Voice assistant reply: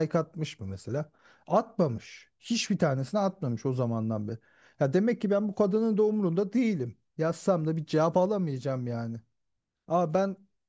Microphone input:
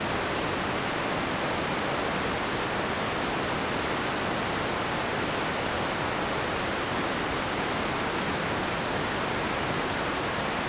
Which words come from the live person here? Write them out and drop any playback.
none

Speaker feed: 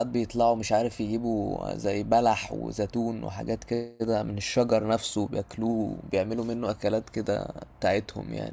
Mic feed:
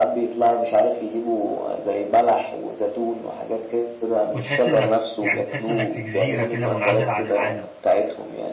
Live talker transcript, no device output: وتحس انك يعني تحس انك في جزيرة كده منعزل عن العالم

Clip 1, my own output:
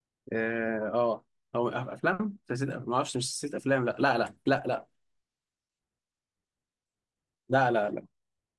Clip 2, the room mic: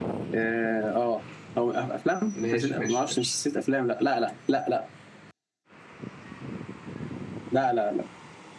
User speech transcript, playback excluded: ماشي ماشي ماشي

